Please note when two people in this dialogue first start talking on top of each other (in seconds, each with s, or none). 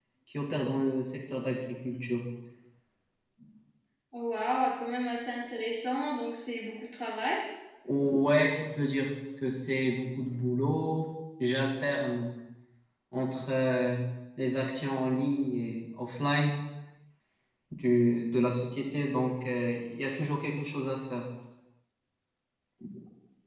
none